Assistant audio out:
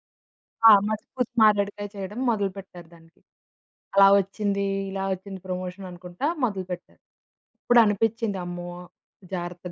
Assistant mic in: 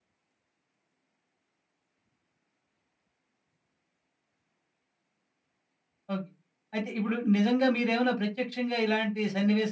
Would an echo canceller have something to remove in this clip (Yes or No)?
No